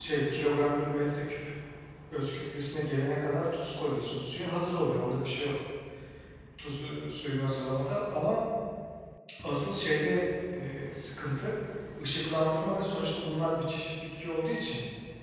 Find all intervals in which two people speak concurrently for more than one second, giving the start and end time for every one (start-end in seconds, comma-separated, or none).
none